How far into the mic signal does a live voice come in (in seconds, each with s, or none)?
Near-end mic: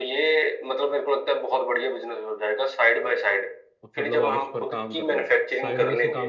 3.8 s